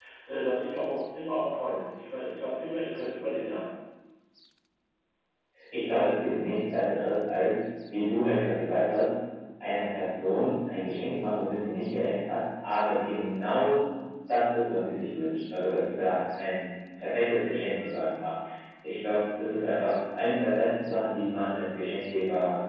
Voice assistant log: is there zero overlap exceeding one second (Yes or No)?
Yes